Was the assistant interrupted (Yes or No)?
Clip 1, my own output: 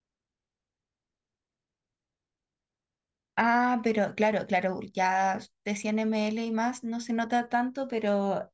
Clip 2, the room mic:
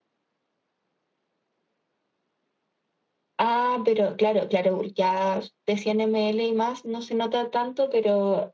No